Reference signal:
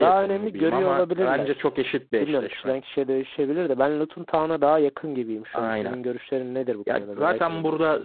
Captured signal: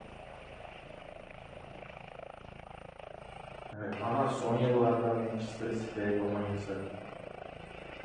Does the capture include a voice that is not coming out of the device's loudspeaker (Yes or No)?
Yes